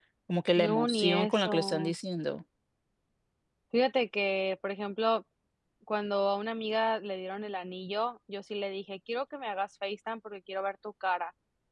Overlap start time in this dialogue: 0.6 s

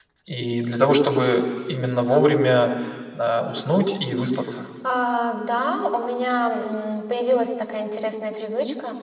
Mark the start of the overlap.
none

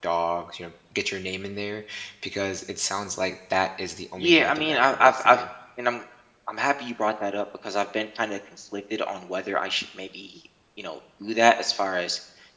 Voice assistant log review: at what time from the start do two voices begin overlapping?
4.2 s

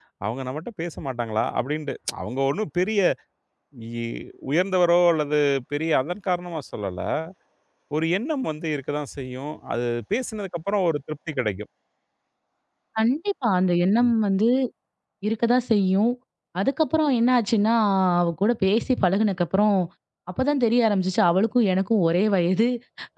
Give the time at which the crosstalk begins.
none

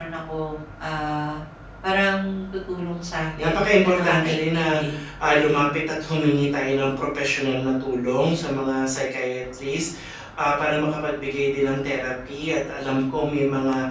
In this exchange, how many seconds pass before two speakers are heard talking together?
3.1 s

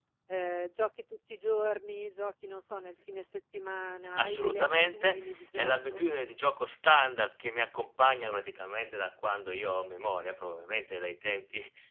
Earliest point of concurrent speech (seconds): 4.2 s

